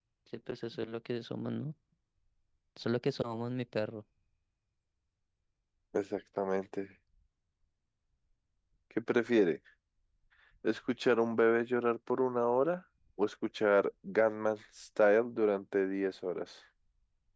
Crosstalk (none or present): none